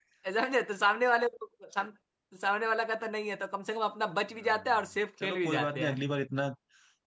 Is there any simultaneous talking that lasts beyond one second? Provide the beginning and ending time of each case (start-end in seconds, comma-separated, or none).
4.3-6.0